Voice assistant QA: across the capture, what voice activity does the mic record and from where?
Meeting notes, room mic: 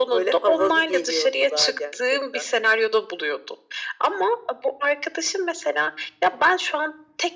echo only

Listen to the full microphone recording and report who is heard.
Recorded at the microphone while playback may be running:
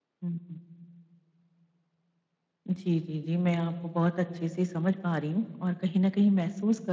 echo only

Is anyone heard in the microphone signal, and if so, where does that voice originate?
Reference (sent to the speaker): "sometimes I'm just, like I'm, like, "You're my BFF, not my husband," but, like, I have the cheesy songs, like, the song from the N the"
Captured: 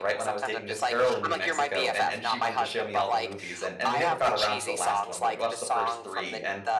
both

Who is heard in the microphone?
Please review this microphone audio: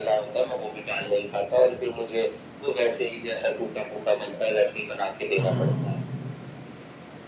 both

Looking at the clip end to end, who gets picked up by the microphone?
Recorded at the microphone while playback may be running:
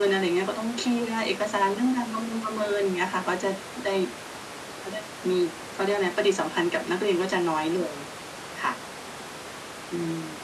echo only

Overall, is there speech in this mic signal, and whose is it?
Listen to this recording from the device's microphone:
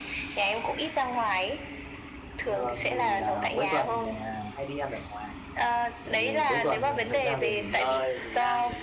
both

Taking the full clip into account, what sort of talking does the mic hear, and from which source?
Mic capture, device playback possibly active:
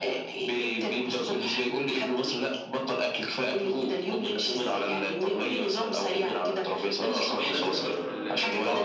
both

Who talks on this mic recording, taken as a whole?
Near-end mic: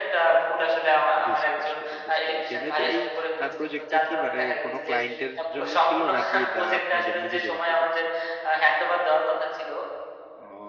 both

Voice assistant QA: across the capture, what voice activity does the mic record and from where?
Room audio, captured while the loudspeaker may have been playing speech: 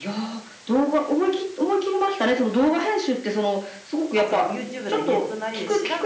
both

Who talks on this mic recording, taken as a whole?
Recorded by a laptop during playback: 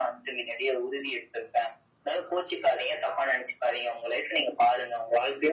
echo only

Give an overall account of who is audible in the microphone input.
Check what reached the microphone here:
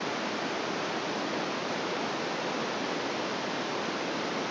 neither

